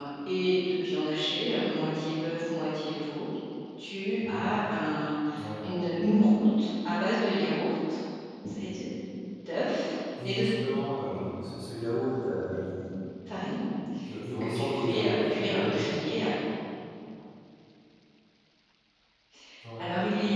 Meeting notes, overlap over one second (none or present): present